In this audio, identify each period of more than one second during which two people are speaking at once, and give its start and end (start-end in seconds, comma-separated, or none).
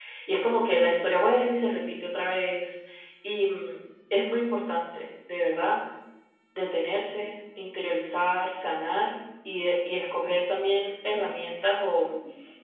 none